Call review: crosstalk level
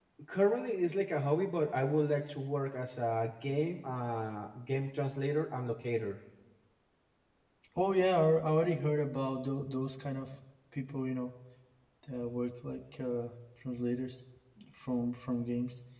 none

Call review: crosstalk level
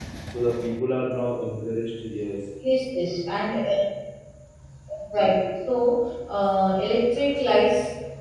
none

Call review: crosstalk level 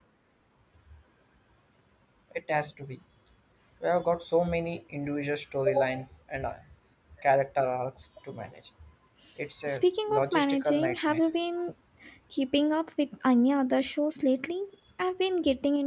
present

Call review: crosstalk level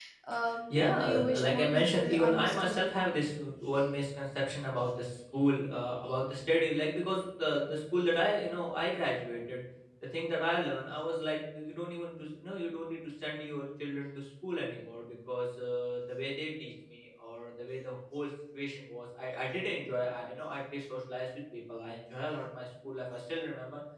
present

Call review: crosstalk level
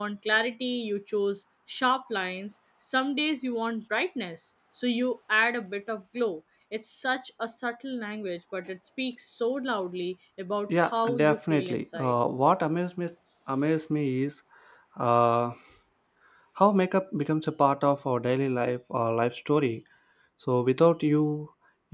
present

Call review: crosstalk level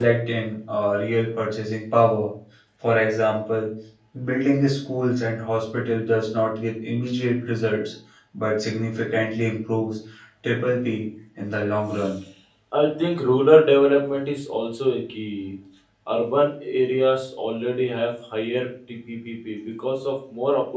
none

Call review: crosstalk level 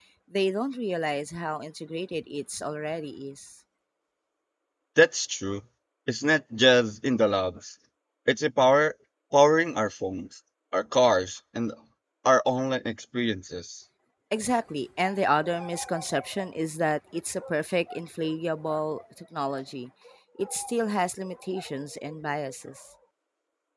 none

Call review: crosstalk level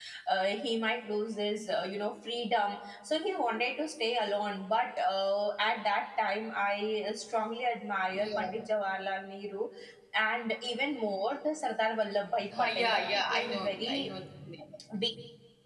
present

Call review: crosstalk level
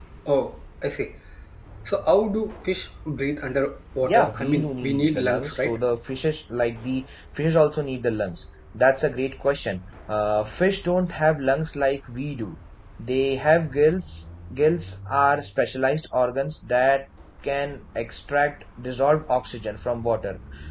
present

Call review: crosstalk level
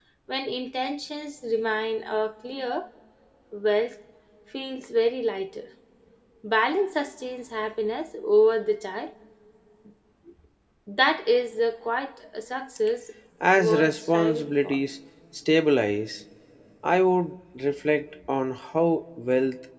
present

